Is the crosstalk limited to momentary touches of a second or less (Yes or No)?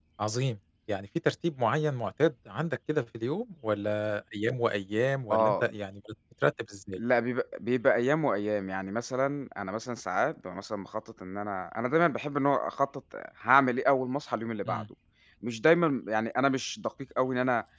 Yes